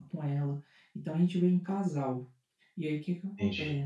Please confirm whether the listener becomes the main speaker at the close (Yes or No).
No